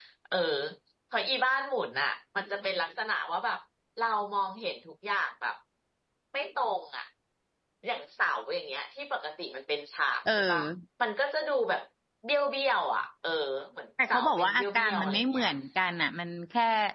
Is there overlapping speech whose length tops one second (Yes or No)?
Yes